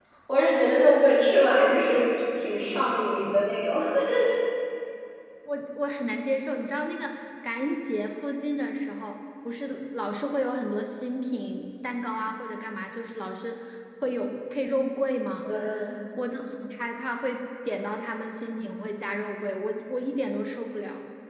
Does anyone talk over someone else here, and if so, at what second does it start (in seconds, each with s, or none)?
none